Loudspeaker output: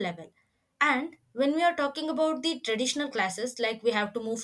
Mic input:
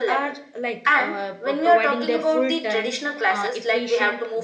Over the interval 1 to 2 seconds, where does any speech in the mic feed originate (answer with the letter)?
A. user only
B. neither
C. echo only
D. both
D